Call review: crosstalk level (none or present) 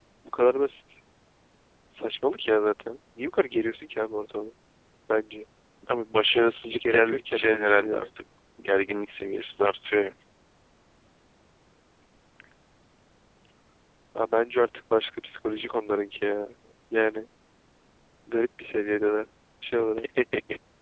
present